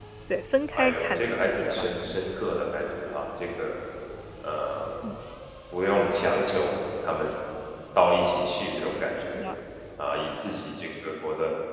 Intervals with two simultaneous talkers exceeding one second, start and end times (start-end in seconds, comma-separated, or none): 0.7-2.2